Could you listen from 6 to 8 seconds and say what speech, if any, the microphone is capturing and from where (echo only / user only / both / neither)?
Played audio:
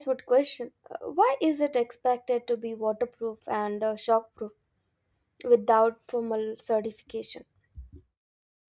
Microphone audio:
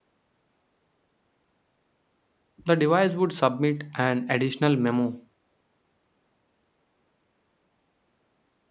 neither